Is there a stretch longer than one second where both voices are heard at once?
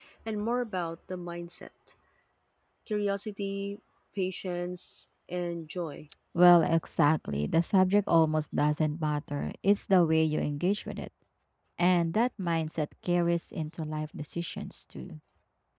No

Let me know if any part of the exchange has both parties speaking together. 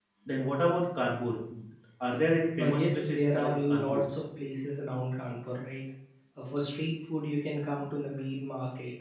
Yes, from 2.6 s

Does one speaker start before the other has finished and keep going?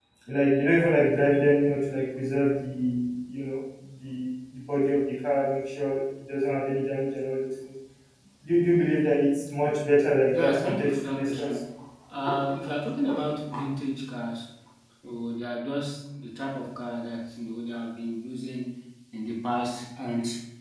Yes, from 10.3 s

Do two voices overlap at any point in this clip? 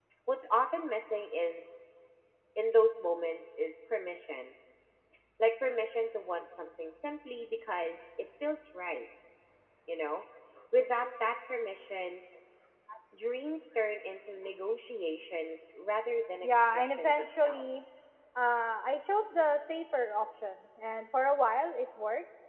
Yes, from 16.4 s

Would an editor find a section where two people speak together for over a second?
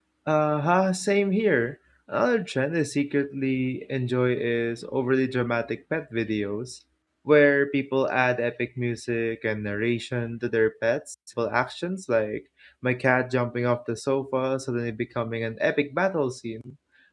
No

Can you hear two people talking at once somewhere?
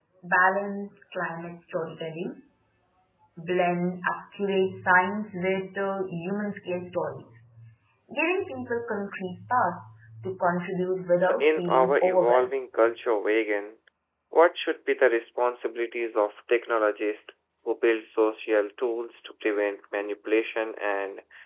Yes, from 11.2 s

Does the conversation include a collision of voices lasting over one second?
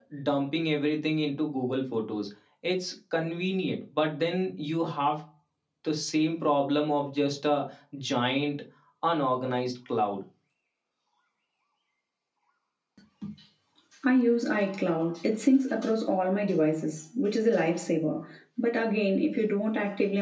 No

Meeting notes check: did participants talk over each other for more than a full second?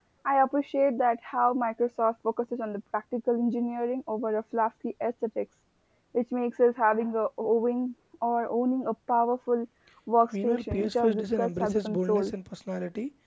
Yes, from 10.4 s

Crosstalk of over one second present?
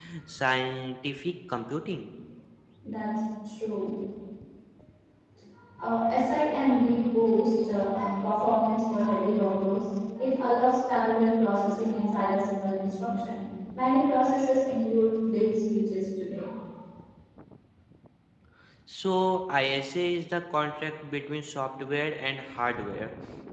No

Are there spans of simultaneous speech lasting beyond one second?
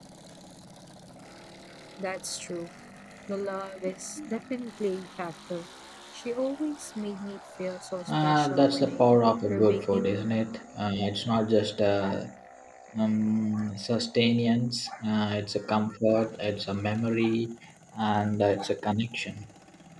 Yes, from 8.1 s

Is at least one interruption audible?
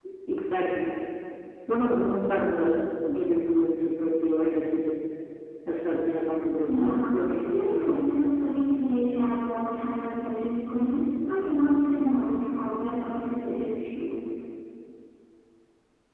Yes, from 6.6 s

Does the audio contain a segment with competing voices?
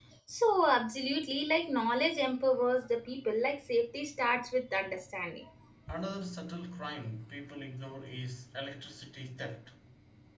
No

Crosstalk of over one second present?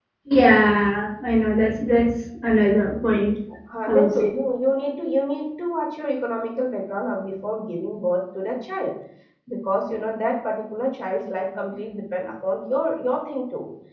No

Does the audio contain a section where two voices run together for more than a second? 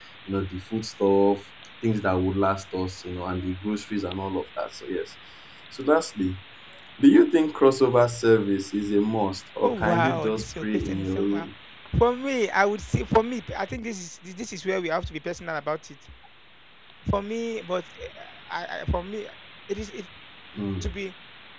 Yes, from 9.6 s

